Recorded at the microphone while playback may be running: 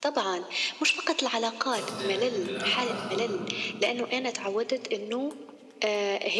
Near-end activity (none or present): present